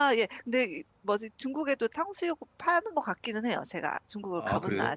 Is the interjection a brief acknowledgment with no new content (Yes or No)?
No